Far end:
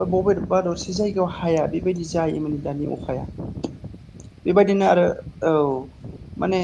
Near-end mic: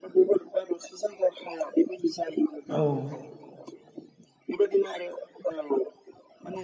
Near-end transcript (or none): औ